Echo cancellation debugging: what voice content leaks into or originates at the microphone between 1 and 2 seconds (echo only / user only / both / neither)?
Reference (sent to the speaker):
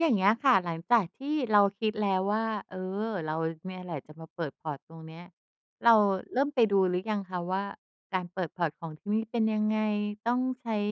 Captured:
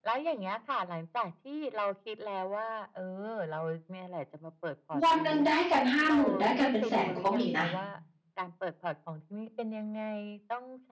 echo only